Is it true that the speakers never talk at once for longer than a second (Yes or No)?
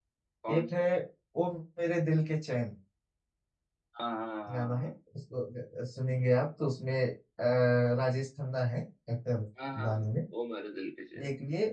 Yes